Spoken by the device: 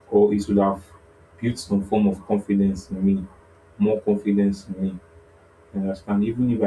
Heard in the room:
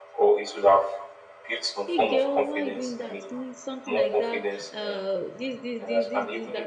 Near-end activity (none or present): present